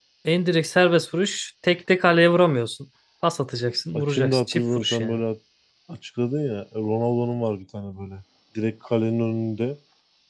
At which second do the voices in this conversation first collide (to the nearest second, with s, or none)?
4 s